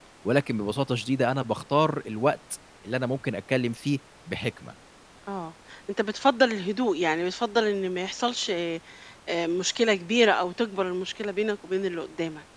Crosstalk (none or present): none